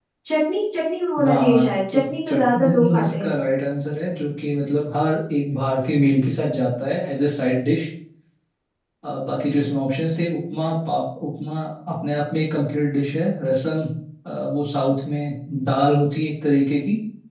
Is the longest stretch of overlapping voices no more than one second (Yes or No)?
No